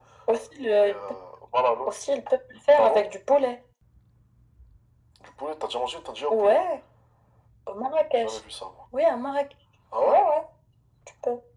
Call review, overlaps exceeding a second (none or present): none